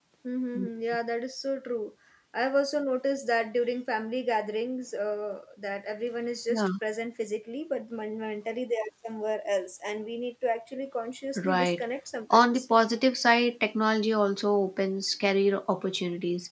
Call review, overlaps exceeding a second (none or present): none